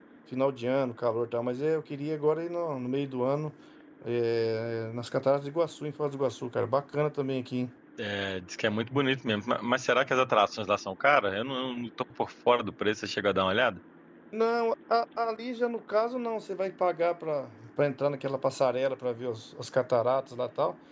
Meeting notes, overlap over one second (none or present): none